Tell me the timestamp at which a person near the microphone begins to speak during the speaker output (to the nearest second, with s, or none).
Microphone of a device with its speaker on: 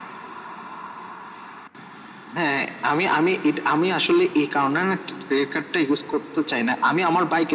none